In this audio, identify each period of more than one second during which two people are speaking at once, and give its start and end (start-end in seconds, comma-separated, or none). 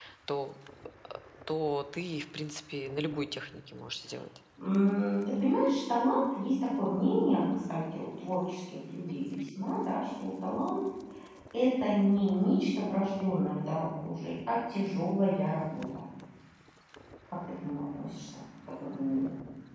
none